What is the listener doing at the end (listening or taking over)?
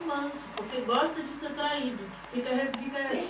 listening